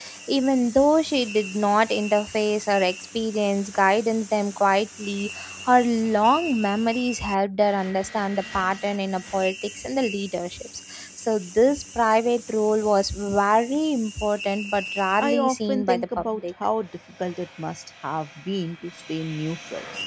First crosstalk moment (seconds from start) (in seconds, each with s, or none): 15.2 s